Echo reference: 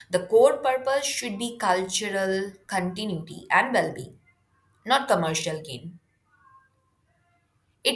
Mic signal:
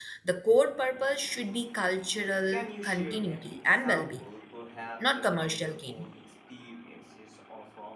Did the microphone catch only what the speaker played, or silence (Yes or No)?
No